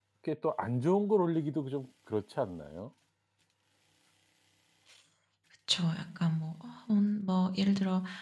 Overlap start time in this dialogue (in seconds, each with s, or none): none